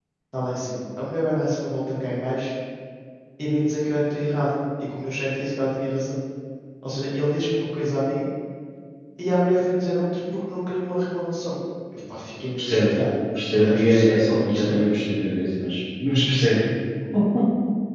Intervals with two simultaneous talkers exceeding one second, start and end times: 13.5-14.8

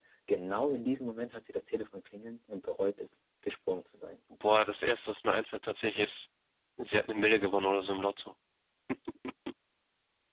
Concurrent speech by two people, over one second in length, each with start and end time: none

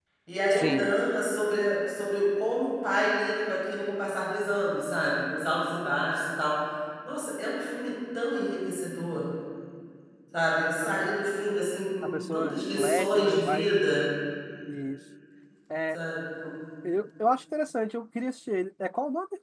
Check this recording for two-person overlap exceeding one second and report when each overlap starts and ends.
12.0-13.7

